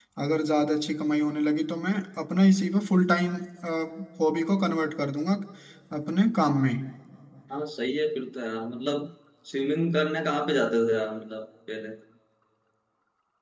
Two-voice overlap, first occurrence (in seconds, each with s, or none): none